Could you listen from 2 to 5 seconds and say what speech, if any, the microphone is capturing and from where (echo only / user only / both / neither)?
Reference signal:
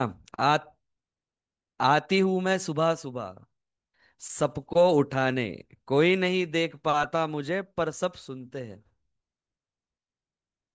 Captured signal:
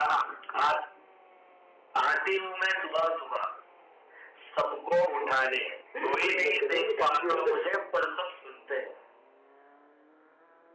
echo only